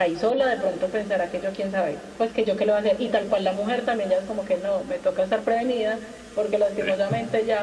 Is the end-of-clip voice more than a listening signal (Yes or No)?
No